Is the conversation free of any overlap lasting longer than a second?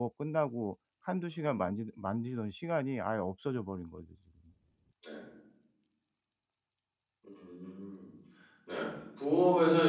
Yes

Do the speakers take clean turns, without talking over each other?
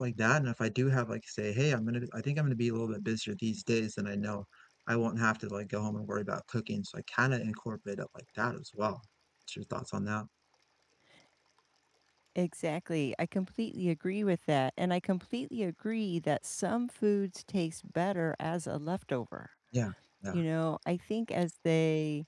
Yes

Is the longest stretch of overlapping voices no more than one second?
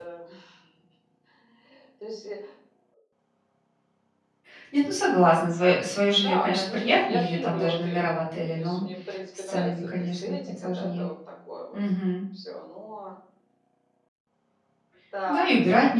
No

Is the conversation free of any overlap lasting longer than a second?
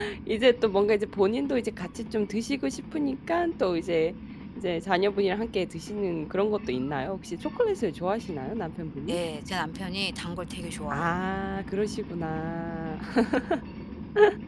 Yes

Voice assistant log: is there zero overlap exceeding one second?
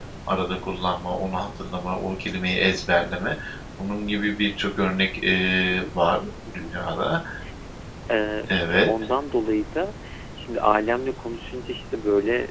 Yes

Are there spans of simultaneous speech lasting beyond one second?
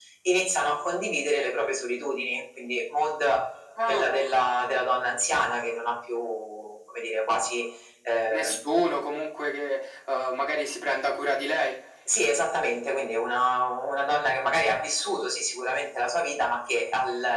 No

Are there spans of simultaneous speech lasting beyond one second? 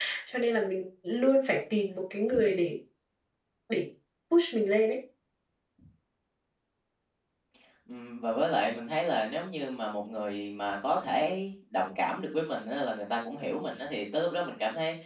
No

